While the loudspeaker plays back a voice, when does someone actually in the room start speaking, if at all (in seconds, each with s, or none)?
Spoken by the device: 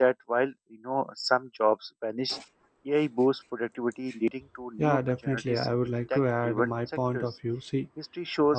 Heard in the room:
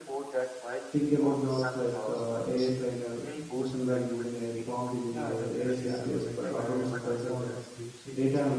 0.9 s